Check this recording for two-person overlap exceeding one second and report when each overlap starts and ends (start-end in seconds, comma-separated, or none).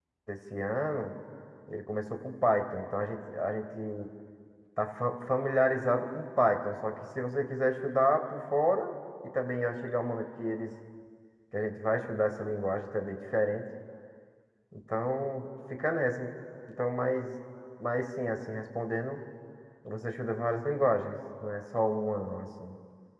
none